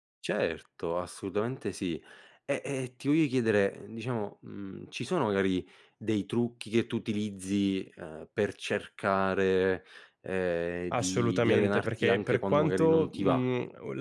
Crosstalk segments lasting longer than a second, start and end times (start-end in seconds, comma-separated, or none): 10.9-13.4